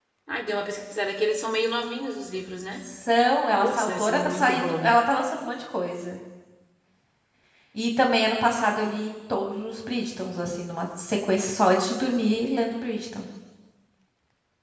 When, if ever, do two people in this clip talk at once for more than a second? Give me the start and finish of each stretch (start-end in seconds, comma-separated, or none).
3.6-4.9